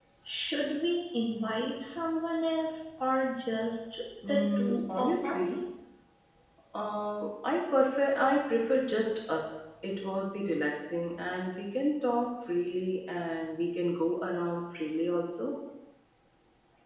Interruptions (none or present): present